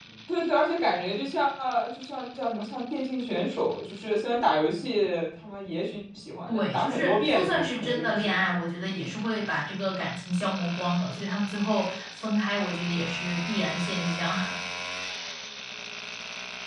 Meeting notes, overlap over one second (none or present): present